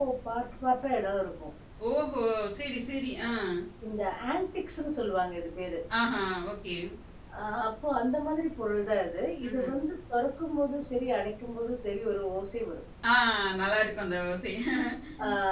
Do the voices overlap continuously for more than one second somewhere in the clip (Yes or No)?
No